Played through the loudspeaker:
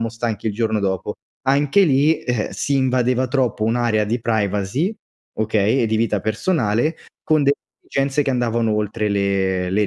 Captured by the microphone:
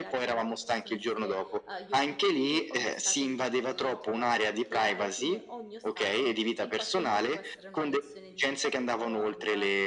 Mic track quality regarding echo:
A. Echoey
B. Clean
A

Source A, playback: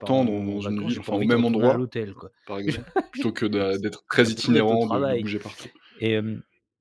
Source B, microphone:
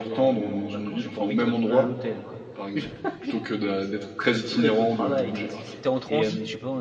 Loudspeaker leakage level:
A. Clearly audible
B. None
A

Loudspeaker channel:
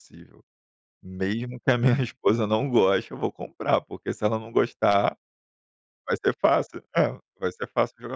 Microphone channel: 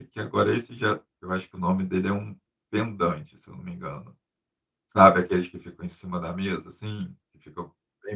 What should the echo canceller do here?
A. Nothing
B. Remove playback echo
A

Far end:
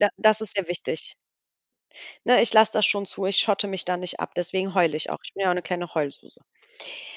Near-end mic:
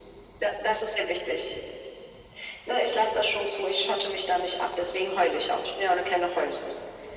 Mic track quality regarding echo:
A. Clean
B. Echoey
B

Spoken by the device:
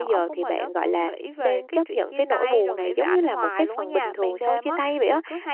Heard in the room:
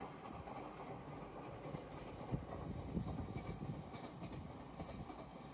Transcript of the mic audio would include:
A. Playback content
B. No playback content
B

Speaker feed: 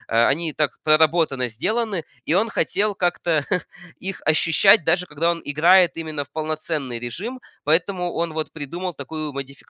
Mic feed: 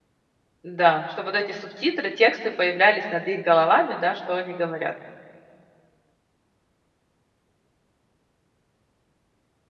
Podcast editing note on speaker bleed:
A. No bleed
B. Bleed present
A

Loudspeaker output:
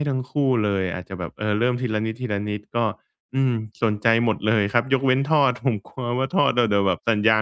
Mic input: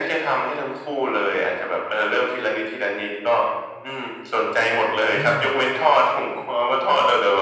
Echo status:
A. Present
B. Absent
A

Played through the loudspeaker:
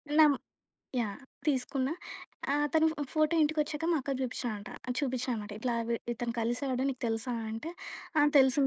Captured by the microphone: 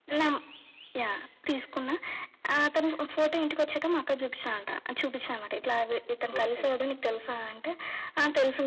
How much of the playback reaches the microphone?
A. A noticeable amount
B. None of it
A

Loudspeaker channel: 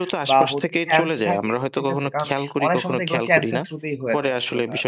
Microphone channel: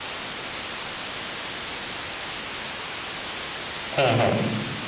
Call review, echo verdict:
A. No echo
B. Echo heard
A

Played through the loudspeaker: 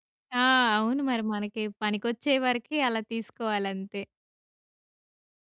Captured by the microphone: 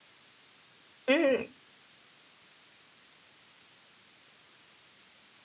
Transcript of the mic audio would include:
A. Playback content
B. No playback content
B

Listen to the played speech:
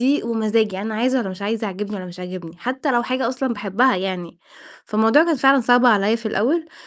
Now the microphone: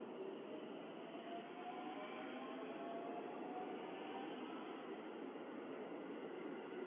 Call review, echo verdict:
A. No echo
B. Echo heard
A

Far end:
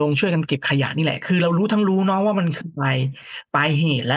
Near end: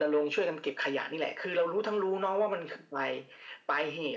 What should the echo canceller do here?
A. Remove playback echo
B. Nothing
A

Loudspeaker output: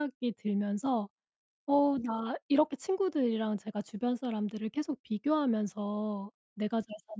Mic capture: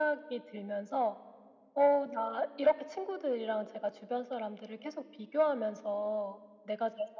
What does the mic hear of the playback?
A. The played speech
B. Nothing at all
A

